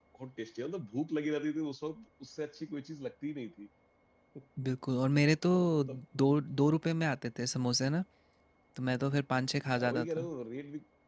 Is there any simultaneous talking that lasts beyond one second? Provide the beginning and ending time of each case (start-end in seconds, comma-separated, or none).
none